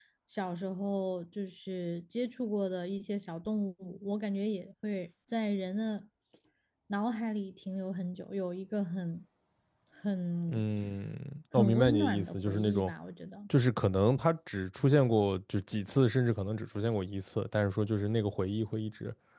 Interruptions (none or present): present